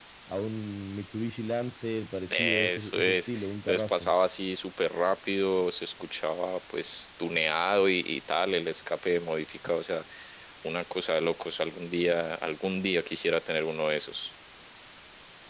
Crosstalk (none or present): present